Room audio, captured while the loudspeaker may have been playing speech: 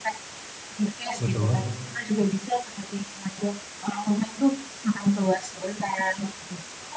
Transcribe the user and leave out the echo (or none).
betul.